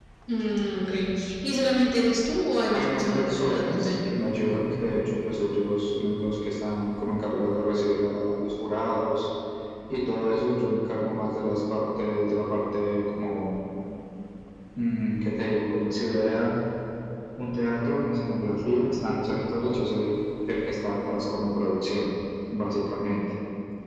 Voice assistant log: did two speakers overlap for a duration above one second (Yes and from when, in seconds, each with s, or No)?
Yes, from 2.7 s